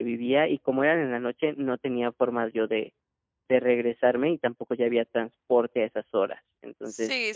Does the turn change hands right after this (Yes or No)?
Yes